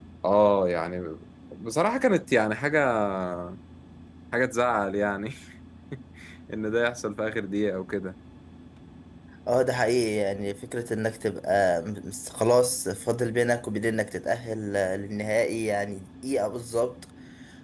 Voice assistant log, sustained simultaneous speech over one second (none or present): none